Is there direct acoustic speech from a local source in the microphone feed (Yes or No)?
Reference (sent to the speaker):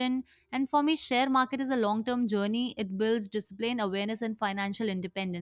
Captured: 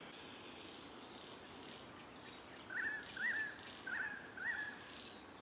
No